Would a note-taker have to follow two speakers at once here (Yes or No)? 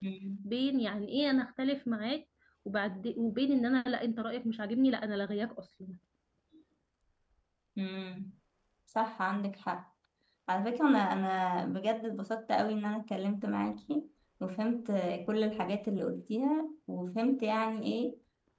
No